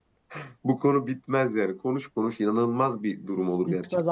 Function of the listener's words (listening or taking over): taking over